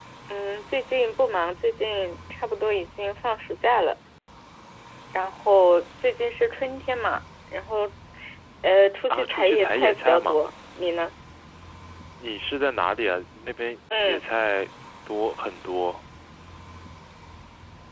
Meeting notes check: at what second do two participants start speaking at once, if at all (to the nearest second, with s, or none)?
9 s